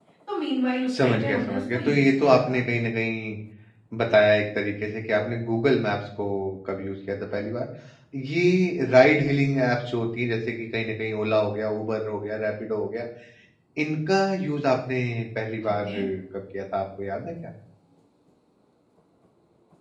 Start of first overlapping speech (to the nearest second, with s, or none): 1 s